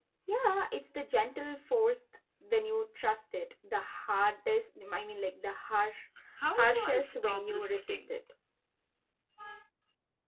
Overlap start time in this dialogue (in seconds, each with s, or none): 6.5 s